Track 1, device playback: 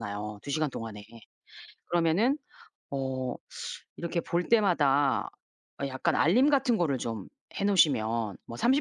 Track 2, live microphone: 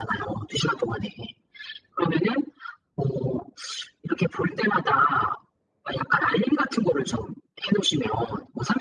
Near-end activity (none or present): none